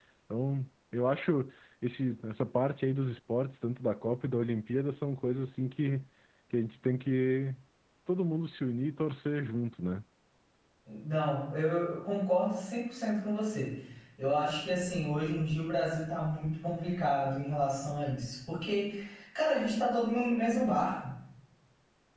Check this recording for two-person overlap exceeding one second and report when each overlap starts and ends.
none

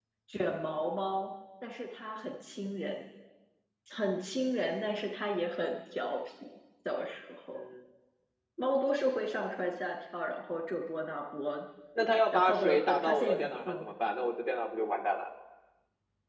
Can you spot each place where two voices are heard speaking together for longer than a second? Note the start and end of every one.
12.3-13.8

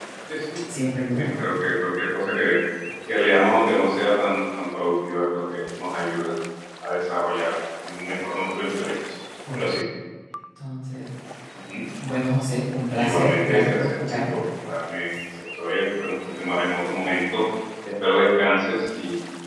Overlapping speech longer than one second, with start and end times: 12.9-14.4

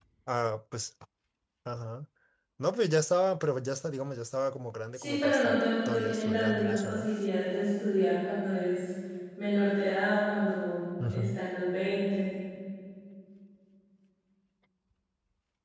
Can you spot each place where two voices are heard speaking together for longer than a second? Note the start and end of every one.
4.9-7.0

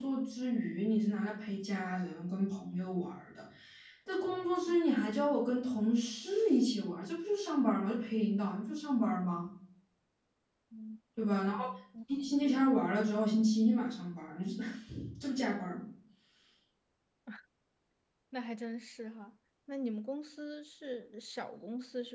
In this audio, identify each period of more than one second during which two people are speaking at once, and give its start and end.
none

